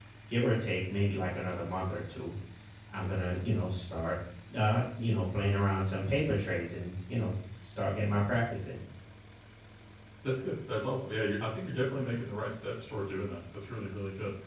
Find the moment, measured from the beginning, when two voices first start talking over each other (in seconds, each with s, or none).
none